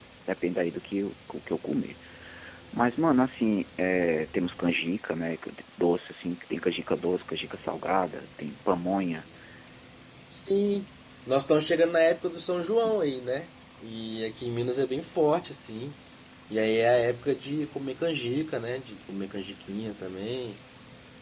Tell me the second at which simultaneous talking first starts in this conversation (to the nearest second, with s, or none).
none